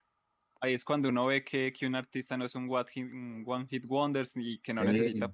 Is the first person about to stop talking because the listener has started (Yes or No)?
No